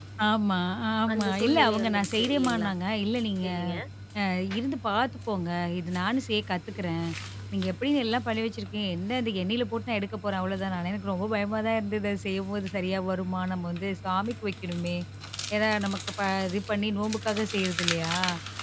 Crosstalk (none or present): present